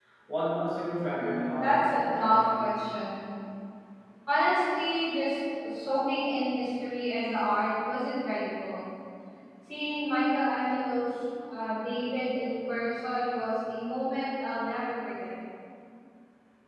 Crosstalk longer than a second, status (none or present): present